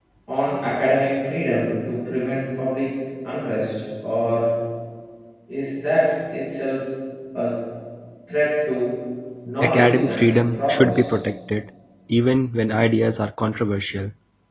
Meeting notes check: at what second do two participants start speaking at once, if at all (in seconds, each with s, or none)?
9.6 s